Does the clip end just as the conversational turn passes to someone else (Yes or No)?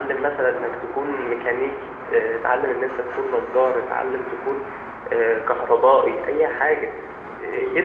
No